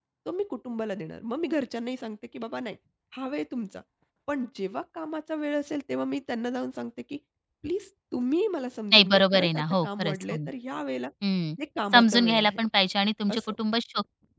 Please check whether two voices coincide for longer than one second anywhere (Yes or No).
Yes